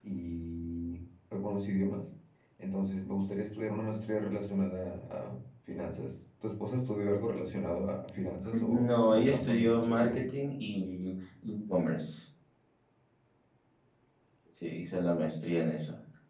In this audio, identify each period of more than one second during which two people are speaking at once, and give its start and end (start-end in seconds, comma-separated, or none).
8.7-10.2